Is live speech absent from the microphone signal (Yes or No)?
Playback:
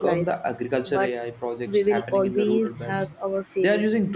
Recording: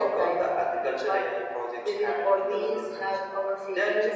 Yes